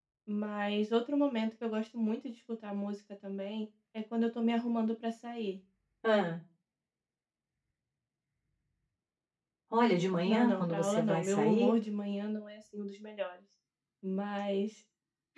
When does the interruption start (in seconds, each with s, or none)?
10.2 s